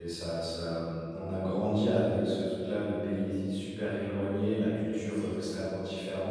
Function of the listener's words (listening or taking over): listening